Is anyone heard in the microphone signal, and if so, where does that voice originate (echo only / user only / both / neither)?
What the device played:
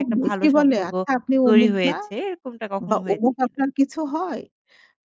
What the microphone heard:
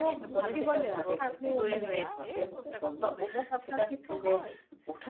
both